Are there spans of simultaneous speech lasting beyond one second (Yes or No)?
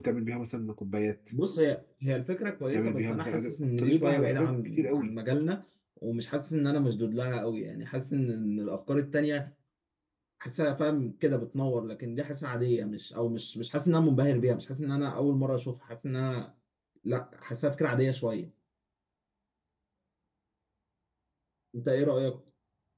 Yes